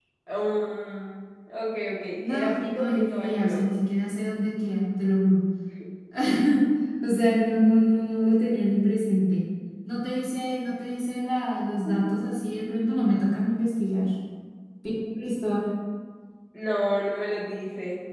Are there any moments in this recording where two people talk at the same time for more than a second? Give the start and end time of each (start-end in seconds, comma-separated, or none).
2.1-3.7